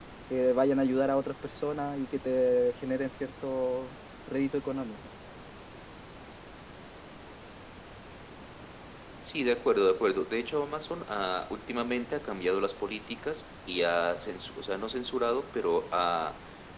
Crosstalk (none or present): none